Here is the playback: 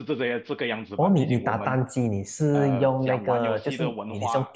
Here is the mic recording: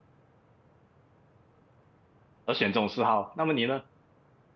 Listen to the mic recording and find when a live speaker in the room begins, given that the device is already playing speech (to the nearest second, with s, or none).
2 s